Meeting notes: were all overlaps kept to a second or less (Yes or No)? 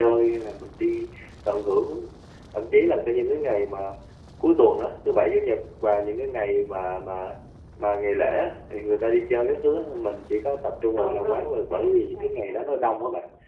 No